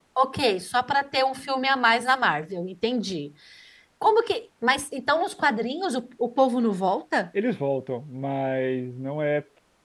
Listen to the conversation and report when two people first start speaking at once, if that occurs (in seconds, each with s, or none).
none